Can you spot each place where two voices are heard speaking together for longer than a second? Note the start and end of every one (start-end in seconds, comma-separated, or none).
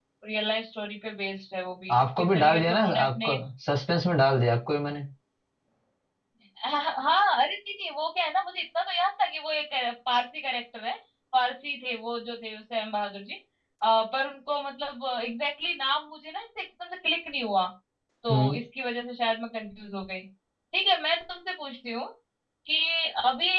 1.9-3.3